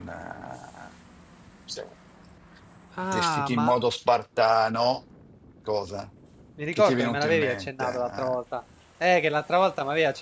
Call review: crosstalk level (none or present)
present